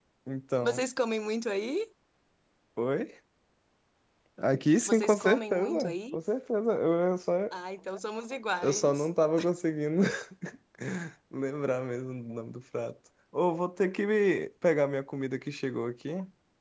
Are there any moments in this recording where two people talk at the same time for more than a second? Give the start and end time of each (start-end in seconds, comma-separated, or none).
4.9-6.2